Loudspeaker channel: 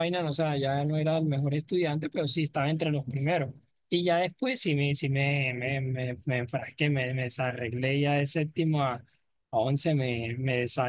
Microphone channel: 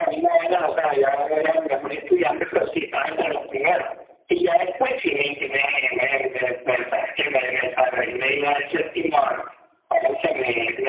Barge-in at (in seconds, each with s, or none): none